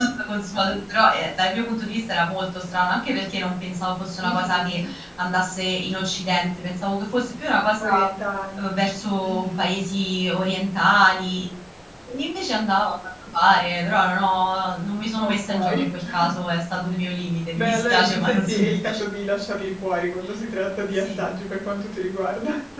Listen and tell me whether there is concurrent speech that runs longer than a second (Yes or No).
Yes